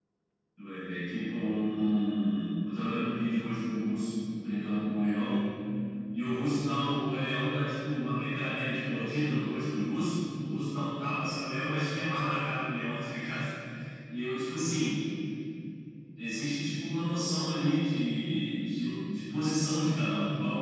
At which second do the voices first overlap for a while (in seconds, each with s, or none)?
none